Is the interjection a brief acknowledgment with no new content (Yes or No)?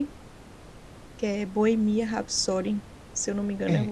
No